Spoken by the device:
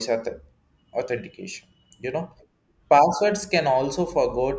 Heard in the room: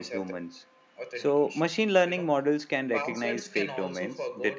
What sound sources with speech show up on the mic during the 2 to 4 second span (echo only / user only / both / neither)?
both